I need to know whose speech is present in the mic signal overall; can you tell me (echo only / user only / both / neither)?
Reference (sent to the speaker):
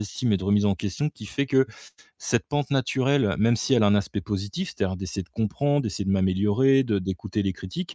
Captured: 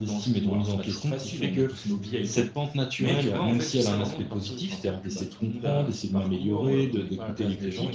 both